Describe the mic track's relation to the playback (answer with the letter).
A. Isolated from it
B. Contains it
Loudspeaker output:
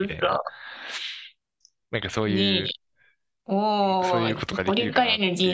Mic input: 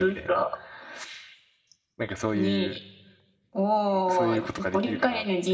B